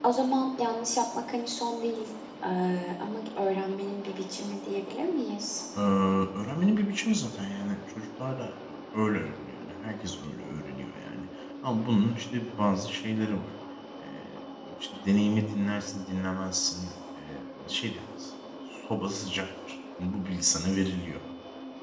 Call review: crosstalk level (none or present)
none